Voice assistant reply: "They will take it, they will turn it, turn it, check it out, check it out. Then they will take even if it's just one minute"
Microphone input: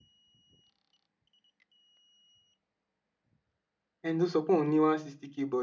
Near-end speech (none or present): present